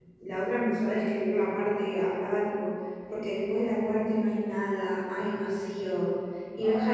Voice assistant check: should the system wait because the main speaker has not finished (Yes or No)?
Yes